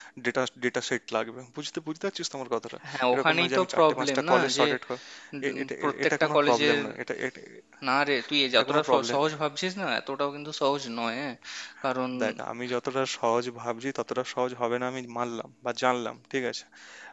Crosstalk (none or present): present